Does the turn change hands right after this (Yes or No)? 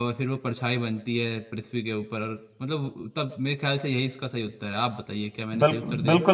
Yes